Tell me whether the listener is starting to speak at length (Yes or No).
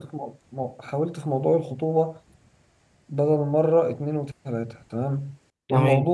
No